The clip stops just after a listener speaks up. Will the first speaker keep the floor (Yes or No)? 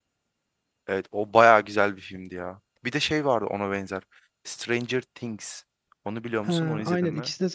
No